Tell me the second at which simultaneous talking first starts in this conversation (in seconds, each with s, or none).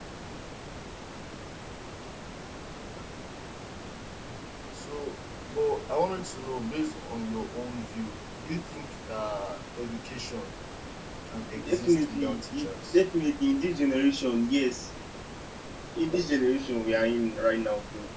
11.6 s